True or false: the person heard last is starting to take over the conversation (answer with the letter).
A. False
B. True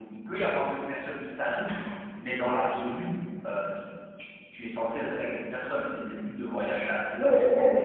B